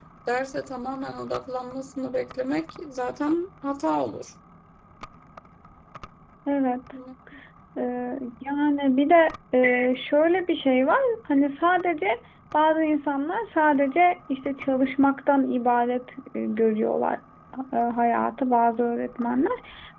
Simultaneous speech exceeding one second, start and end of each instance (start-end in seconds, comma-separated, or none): none